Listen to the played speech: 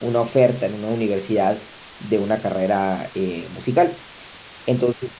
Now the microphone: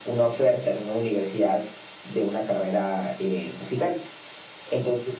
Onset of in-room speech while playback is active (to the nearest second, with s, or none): none